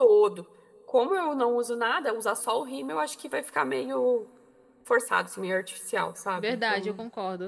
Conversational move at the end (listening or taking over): taking over